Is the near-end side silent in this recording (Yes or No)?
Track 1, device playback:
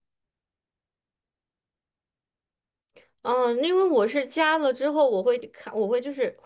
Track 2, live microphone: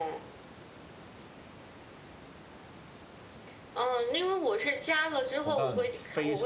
No